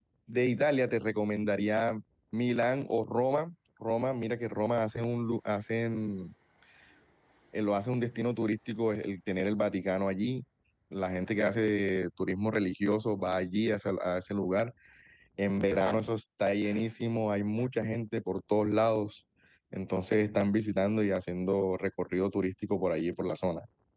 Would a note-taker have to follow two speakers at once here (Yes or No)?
No